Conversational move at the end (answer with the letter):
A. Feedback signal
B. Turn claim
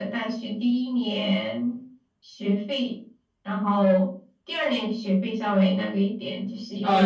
B